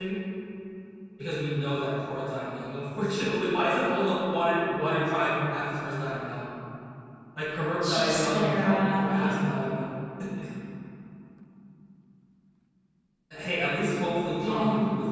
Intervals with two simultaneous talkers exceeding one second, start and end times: 7.8-9.3

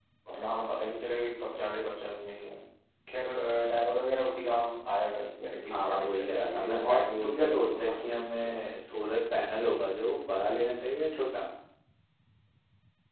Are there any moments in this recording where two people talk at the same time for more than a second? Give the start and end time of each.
5.7-8.7

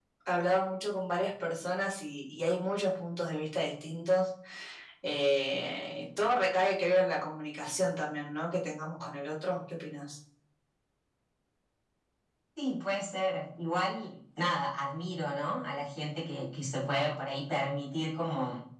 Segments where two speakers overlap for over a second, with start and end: none

